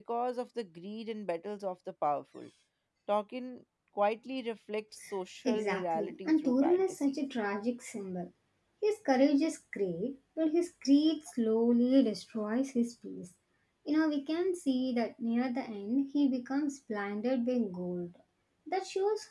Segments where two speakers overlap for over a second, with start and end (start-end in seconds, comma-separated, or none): 5.5-7.1